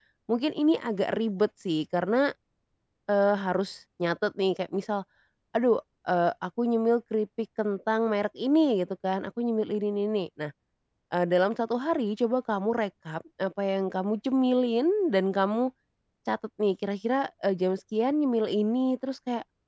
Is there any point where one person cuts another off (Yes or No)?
No